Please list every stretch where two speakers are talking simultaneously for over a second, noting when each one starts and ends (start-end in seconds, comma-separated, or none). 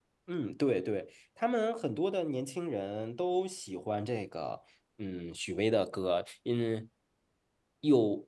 none